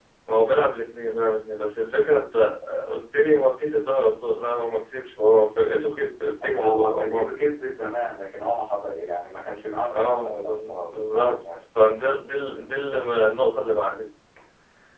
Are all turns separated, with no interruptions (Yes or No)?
No